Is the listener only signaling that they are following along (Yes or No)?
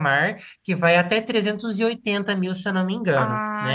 No